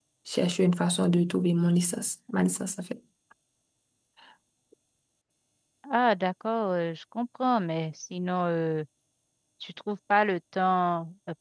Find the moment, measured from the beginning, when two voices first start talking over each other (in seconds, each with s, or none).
none